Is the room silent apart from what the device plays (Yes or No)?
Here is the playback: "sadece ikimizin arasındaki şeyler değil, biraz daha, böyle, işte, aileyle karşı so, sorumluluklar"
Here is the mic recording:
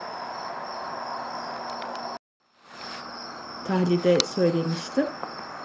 No